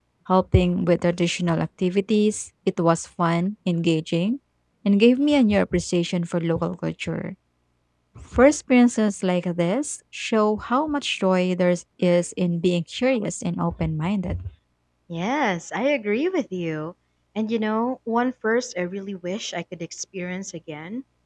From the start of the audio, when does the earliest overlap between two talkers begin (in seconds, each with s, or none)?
none